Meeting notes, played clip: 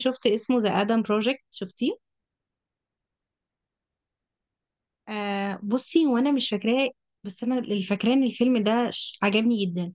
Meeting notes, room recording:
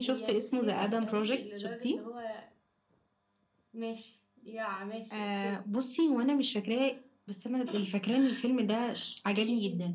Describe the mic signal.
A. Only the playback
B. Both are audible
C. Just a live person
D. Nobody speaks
B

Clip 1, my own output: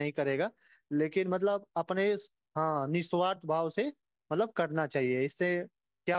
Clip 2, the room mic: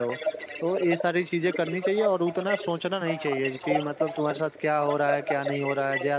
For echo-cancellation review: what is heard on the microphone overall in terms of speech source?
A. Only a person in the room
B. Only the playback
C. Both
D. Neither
C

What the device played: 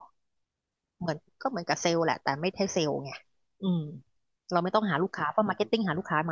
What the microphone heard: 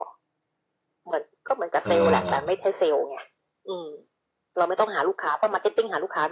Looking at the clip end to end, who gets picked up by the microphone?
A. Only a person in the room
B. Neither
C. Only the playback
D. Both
D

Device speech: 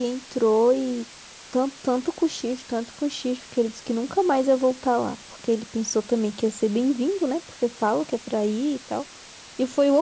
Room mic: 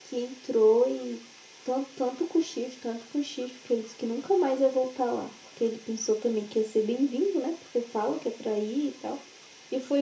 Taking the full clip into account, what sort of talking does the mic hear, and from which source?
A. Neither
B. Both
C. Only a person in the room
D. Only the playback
D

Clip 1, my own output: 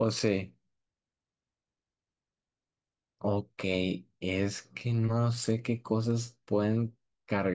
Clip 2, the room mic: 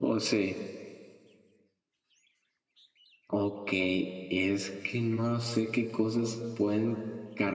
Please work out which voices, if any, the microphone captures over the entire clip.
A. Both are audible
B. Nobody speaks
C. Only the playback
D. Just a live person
C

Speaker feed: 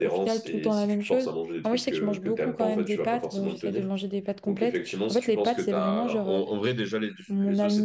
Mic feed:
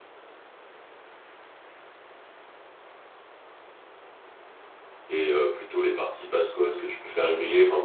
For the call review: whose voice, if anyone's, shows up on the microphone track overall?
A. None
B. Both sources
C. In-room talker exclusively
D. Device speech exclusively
C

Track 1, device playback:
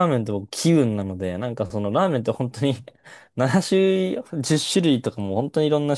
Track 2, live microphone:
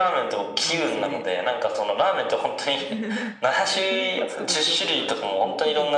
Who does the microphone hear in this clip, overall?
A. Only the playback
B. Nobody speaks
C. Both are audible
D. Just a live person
C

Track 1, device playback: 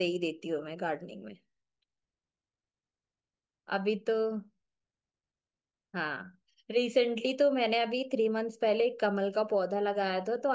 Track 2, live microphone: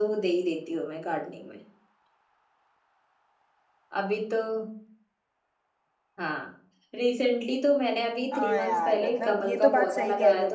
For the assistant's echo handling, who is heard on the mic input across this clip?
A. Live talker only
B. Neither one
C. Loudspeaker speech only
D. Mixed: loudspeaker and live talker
D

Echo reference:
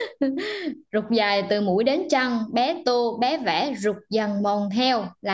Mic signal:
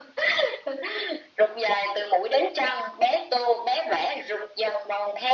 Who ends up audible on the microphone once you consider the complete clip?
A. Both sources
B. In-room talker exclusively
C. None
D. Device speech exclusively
D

